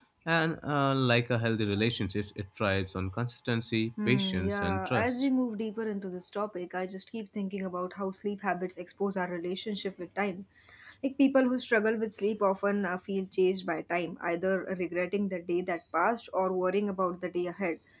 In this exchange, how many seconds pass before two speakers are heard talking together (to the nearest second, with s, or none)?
4 s